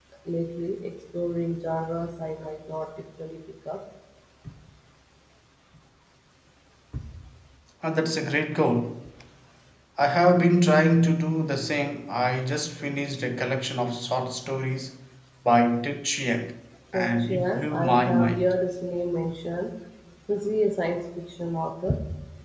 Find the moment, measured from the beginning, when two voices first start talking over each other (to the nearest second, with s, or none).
17 s